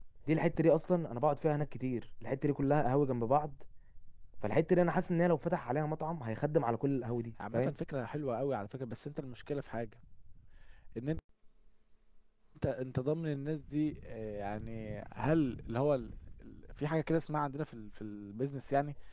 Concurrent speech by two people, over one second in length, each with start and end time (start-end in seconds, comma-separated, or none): none